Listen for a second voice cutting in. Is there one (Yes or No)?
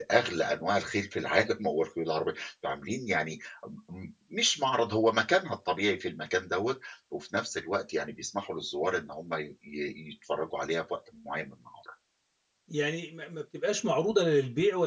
No